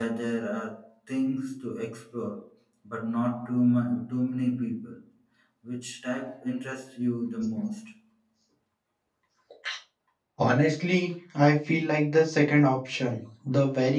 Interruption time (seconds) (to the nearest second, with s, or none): none